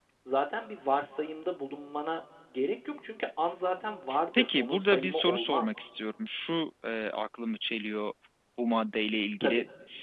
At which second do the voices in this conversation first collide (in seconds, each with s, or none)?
4.4 s